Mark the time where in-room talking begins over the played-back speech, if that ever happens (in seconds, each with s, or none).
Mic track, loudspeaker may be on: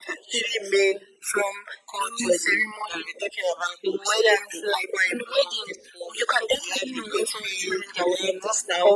none